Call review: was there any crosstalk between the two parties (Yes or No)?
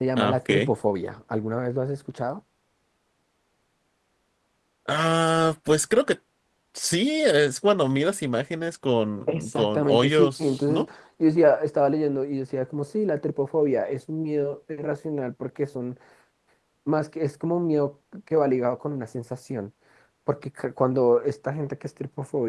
Yes